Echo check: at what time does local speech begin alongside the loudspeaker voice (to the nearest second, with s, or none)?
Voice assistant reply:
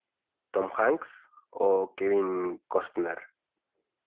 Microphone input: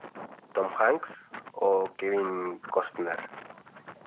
none